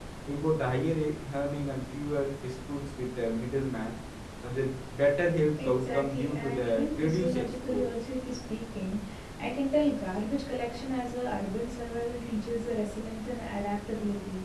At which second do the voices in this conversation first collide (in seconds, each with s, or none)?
5.6 s